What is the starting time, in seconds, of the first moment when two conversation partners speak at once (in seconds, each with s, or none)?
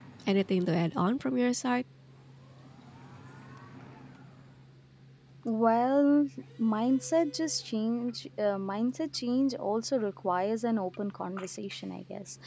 none